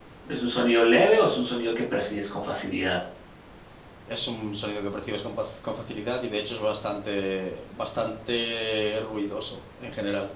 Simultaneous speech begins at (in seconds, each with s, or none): none